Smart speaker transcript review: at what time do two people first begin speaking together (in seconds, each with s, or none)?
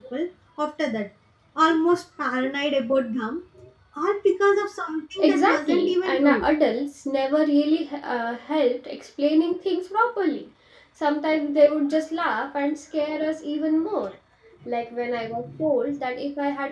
5.2 s